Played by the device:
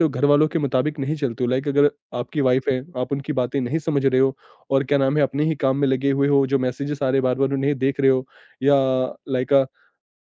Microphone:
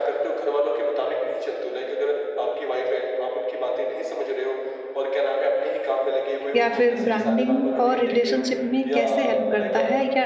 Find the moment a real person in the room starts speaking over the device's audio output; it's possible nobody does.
6.5 s

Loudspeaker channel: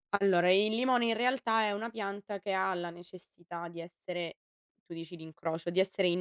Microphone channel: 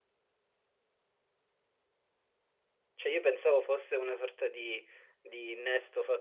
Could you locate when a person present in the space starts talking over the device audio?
2.9 s

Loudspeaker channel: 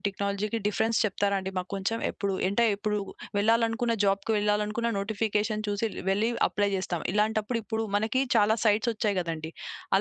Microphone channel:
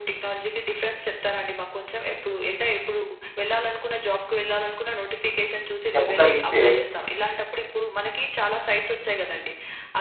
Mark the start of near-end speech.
5.9 s

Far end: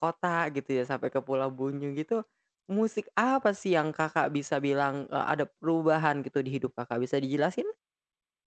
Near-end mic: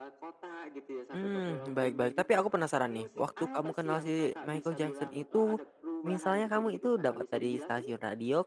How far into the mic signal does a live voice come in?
1.1 s

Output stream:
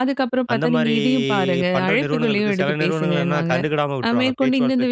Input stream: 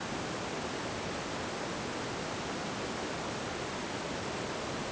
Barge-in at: none

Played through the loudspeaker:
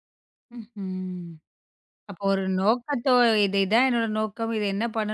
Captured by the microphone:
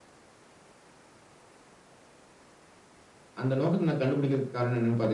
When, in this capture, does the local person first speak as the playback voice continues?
3.4 s

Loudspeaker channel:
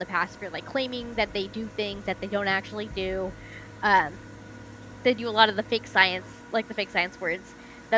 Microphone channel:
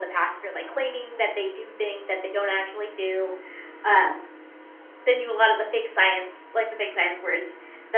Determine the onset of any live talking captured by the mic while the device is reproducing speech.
none

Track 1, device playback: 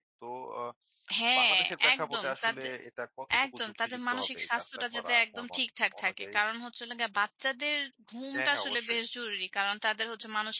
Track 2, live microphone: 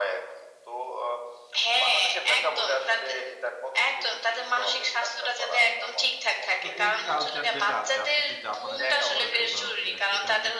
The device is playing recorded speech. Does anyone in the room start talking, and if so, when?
6.6 s

